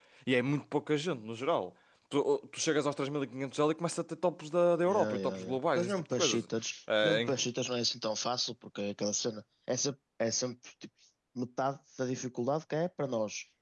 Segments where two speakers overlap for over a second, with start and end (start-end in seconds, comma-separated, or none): 4.8-6.4